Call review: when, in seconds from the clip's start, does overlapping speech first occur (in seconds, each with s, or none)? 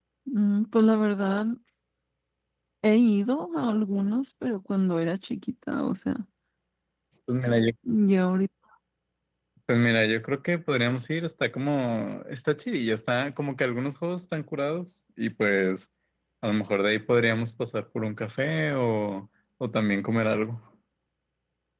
none